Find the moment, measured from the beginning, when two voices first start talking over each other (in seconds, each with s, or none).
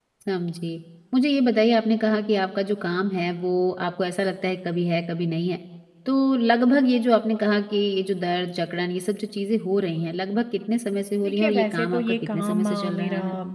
11.2 s